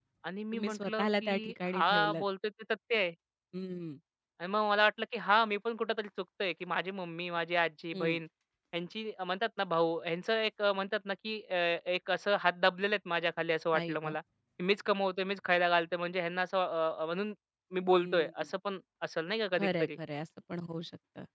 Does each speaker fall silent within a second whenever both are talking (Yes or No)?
No